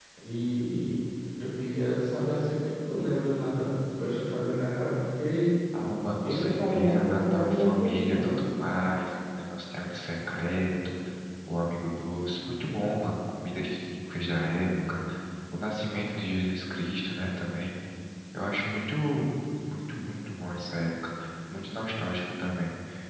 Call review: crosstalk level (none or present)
present